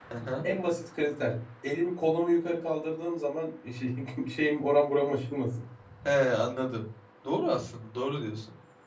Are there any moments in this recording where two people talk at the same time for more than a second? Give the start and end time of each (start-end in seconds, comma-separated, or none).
none